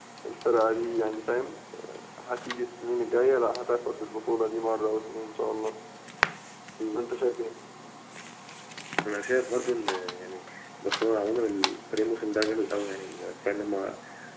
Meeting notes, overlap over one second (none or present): none